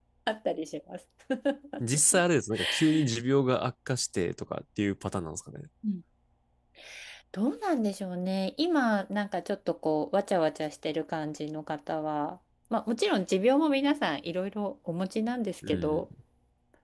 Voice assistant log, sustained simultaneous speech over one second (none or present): none